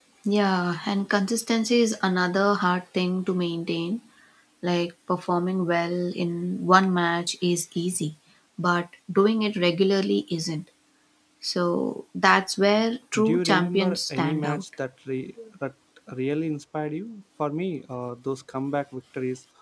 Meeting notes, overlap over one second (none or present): present